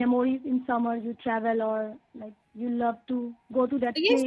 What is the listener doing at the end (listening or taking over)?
taking over